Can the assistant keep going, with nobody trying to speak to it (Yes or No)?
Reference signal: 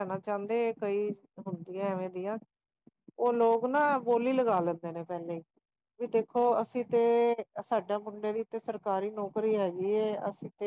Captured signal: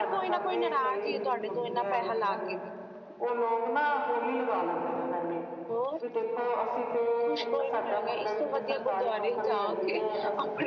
No